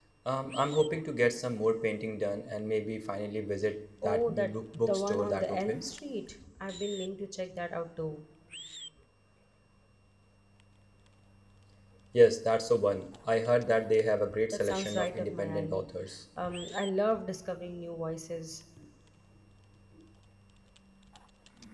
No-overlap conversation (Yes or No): No